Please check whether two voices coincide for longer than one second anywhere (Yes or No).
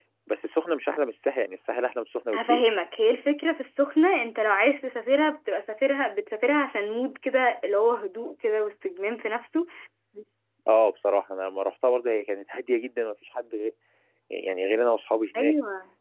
No